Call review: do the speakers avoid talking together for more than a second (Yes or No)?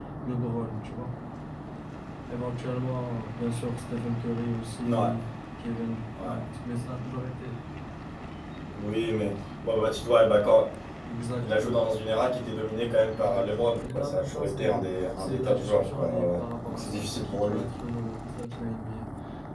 No